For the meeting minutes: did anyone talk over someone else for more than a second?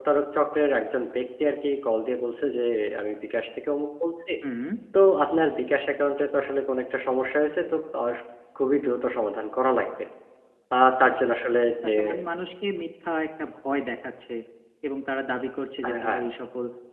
No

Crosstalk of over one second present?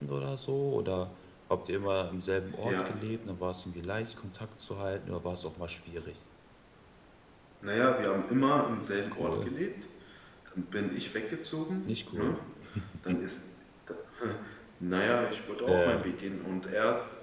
No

